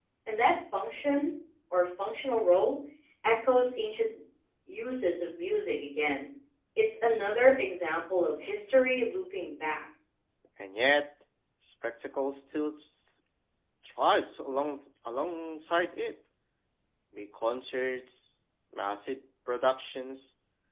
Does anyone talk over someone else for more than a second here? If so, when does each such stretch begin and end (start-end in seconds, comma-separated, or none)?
none